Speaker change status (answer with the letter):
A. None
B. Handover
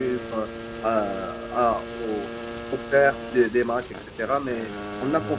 A